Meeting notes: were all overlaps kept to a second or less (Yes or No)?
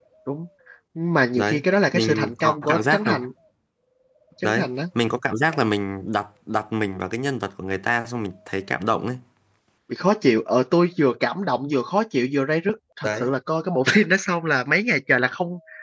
No